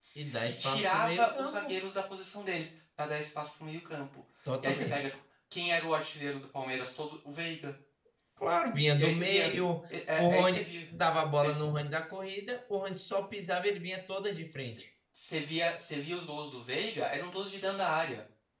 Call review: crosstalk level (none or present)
present